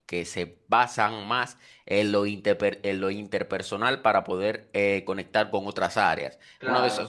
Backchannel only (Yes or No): Yes